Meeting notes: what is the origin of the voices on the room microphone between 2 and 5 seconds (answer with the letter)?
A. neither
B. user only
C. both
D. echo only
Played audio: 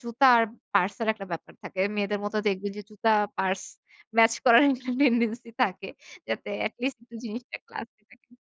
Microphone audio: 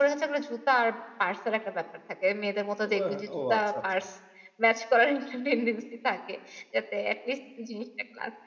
C